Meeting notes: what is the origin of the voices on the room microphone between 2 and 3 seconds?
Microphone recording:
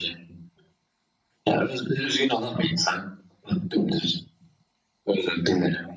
echo only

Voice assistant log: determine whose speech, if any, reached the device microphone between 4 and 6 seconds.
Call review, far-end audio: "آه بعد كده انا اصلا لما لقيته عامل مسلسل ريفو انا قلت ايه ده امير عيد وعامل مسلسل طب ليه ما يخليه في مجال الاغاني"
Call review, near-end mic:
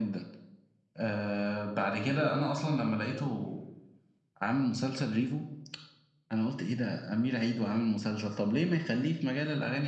echo only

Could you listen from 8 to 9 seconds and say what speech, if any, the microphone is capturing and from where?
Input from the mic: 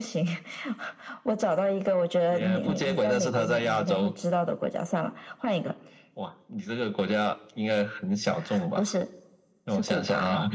echo only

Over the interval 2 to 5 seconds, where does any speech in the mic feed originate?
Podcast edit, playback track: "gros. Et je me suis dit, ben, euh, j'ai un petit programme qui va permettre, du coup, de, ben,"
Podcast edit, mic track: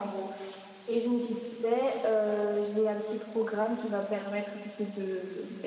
echo only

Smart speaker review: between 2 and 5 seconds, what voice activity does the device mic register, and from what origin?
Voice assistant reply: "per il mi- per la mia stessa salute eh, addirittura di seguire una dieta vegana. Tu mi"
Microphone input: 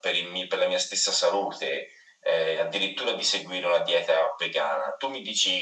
echo only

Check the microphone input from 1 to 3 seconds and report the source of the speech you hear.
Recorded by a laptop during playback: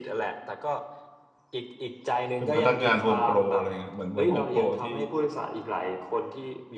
both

